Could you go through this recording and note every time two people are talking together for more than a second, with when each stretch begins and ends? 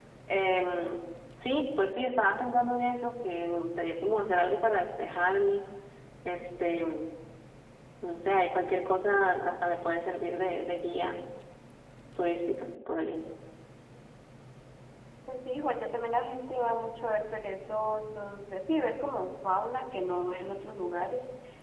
none

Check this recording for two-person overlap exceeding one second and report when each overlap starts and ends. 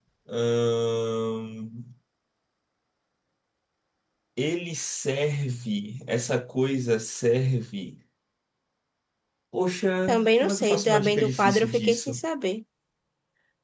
10.1-12.2

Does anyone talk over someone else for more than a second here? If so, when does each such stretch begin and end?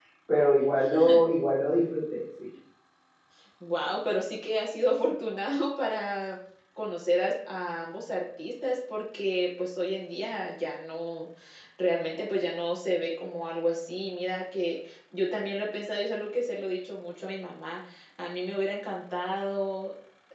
none

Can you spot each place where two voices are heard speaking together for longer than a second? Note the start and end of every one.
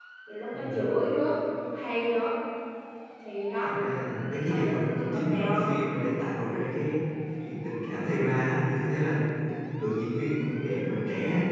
4.5-5.7

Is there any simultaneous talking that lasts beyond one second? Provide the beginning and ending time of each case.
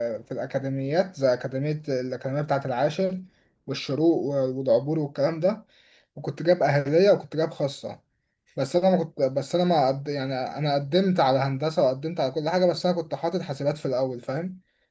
none

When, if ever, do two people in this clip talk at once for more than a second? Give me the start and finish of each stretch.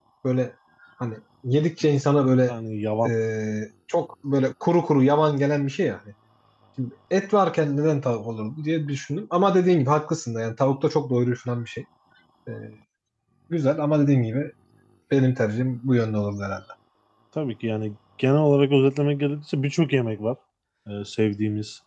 none

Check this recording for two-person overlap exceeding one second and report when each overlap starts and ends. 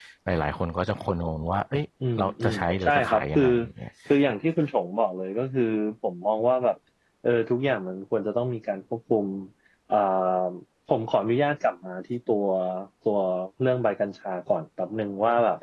2.2-3.4

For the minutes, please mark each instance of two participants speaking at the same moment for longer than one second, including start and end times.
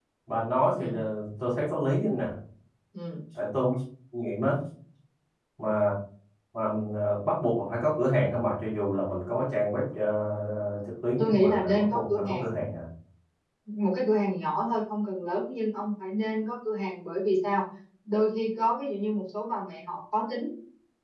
11.2-12.5

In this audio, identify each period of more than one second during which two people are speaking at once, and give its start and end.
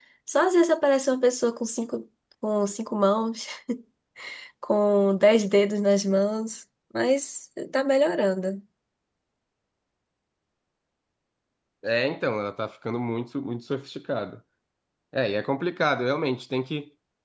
none

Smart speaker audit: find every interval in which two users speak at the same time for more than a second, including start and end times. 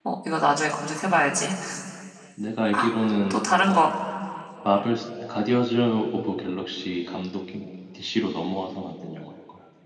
none

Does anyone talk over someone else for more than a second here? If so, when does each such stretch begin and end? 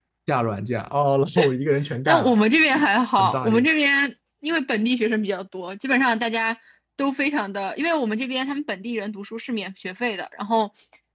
none

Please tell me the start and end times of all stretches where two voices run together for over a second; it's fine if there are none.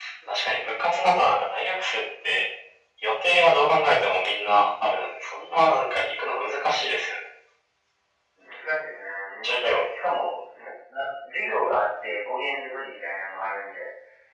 none

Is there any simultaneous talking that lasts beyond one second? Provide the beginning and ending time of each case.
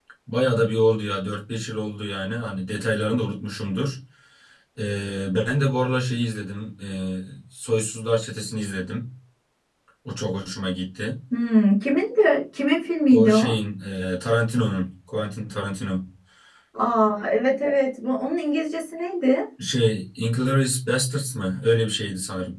none

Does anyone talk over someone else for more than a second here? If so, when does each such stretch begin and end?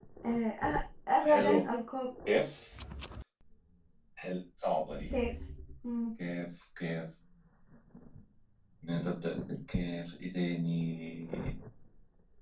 none

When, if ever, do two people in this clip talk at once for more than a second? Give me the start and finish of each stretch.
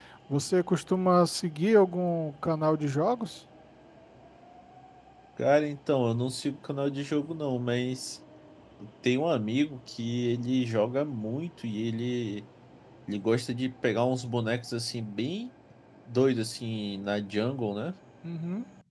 none

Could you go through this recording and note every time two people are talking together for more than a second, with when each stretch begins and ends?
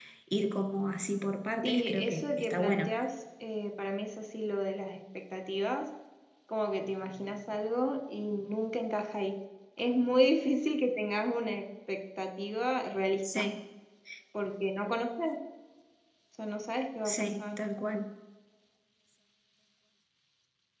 1.6-2.9

